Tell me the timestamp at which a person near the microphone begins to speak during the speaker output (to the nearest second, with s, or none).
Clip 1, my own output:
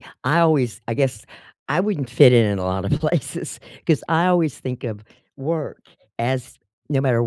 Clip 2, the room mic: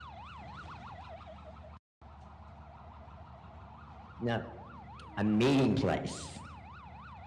4 s